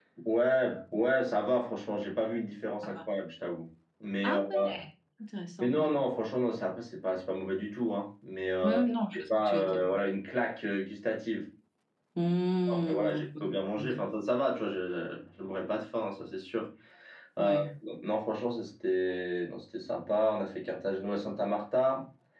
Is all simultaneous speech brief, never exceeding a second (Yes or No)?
No